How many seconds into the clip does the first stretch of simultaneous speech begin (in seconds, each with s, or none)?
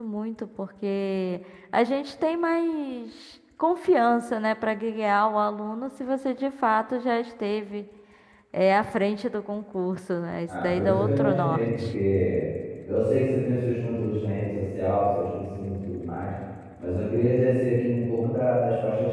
10.5 s